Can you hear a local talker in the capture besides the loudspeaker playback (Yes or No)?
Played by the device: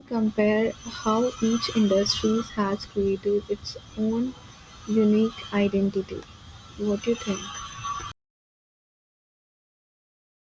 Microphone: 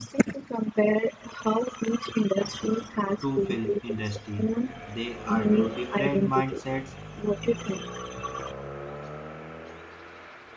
Yes